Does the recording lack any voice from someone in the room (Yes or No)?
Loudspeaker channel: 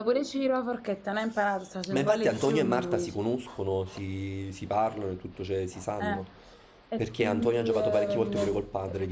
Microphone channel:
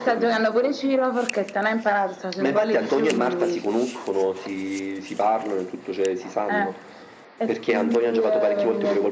Yes